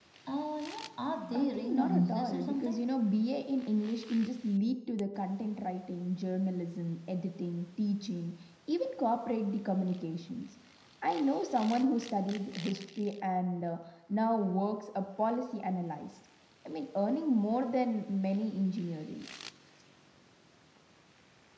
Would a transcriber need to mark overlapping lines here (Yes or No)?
Yes